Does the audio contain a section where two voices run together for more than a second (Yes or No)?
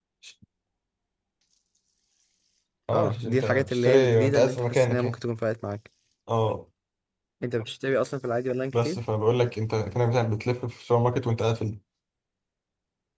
Yes